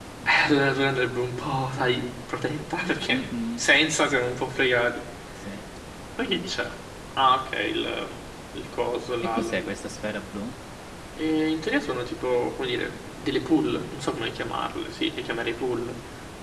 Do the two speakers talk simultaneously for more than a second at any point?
No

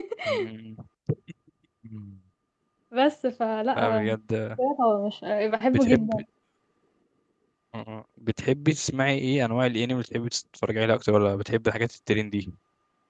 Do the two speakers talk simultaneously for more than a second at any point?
No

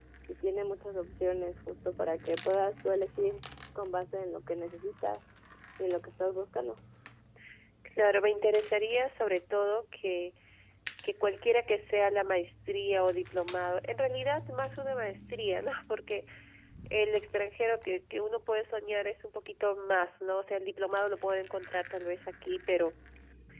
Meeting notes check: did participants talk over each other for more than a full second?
No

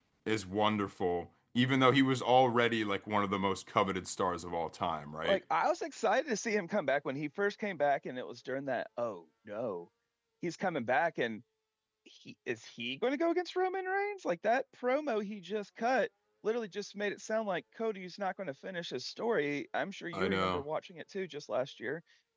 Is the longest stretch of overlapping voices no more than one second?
Yes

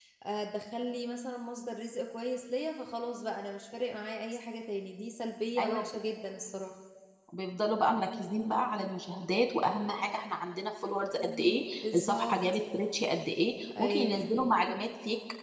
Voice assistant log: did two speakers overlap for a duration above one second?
Yes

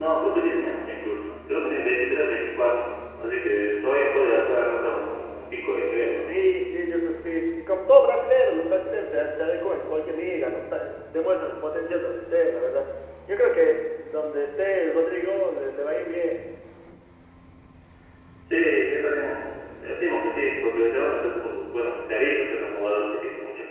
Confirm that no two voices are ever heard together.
Yes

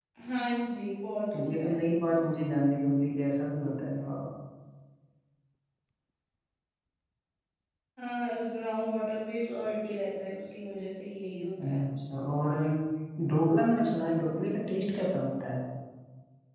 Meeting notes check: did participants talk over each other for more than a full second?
No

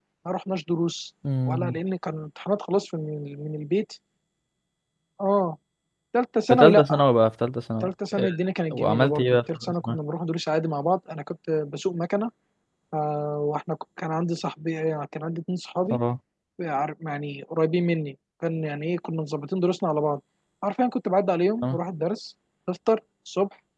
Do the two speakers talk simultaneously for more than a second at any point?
Yes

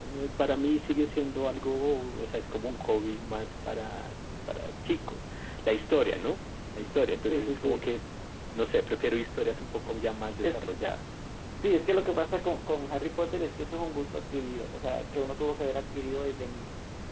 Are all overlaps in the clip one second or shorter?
Yes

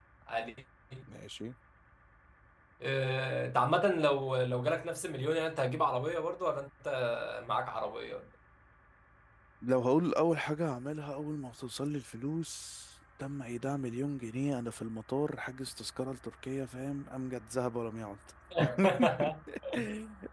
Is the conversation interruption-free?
Yes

